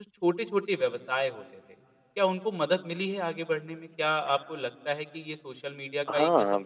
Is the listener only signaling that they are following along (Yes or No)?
No